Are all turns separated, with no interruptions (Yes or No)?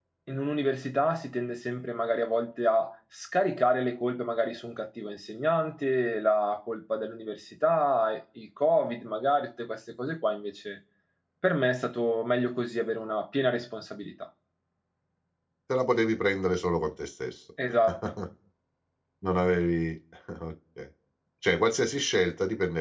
Yes